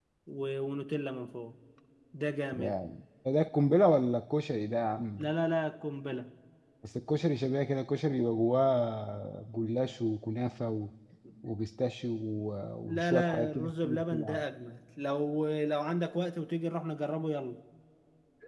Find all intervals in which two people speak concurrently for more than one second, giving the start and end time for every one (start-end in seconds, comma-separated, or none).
12.9-14.4